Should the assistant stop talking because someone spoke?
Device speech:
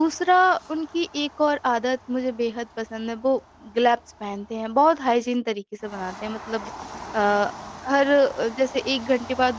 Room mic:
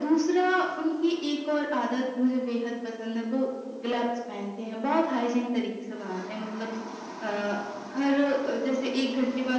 No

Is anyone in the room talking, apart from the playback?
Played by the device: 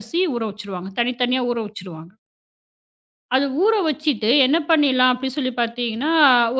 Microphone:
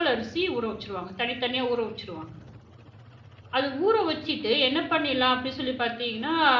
No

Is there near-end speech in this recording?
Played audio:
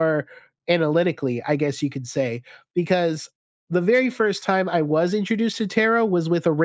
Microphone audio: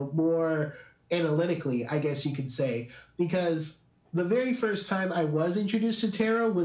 No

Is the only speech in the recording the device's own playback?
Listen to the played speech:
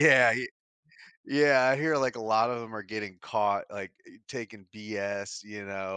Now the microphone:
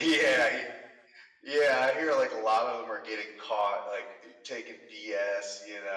Yes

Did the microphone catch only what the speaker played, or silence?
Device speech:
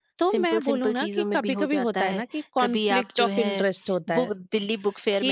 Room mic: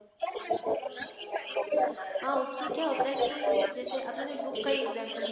No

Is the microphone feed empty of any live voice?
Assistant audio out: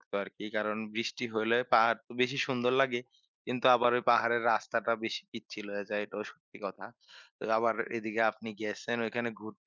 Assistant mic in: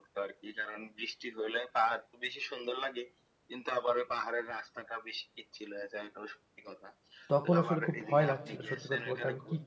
No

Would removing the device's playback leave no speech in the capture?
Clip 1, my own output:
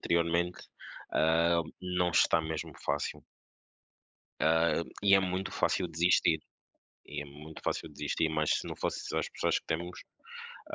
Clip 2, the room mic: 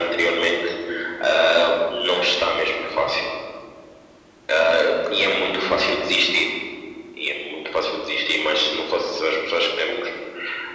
Yes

